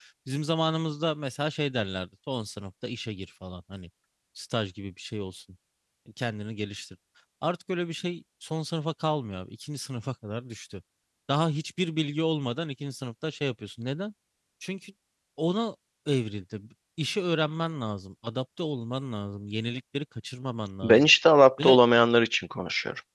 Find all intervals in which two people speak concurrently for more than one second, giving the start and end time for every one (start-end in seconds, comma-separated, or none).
none